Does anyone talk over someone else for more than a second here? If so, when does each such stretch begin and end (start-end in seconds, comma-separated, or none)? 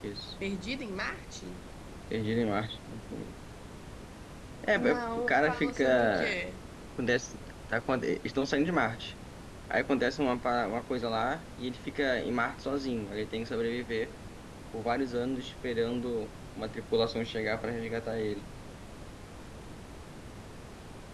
4.8-6.4